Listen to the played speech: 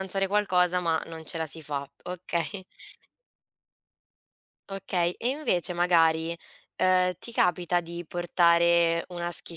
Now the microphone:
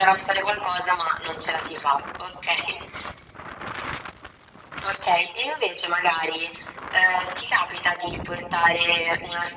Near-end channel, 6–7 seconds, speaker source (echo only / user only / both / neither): echo only